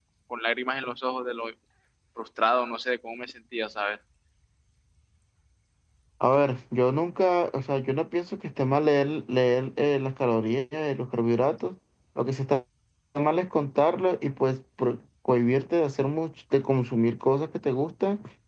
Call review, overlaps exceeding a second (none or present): none